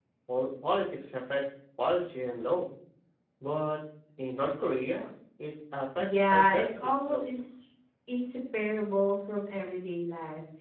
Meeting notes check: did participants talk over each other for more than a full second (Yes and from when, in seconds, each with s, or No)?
Yes, from 6.0 s